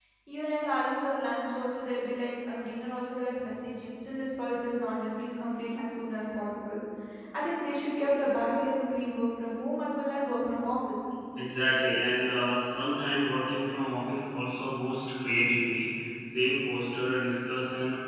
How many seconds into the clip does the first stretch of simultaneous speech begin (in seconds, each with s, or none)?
none